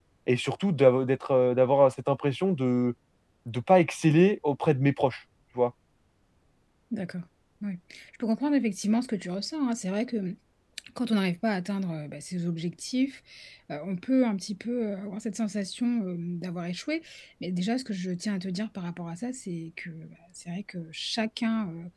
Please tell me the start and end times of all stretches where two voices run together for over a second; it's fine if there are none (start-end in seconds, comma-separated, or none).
none